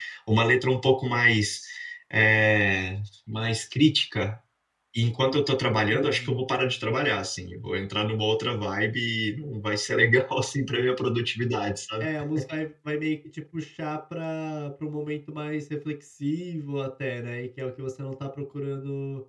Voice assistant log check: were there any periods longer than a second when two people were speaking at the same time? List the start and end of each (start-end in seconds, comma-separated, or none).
none